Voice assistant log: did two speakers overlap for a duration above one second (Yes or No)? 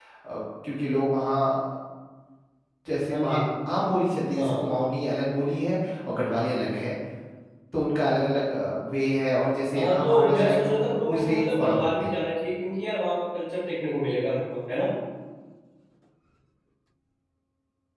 Yes